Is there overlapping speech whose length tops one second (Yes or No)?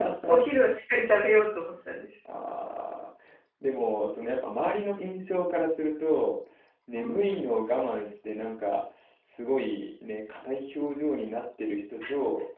No